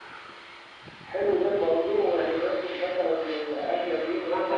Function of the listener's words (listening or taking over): taking over